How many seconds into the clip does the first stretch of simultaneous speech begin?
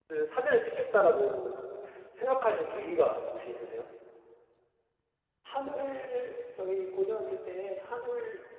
none

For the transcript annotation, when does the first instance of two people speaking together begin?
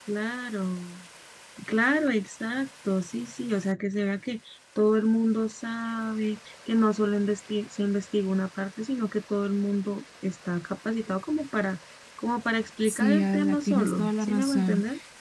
12.9 s

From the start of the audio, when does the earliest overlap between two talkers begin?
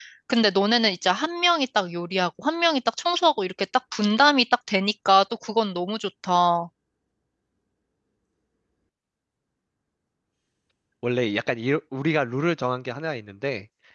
none

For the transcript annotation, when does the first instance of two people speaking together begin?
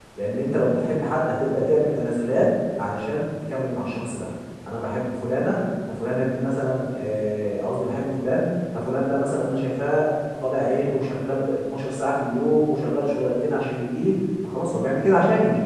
none

